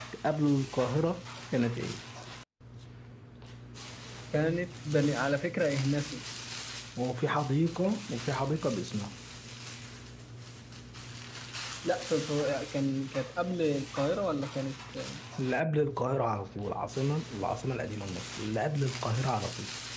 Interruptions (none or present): none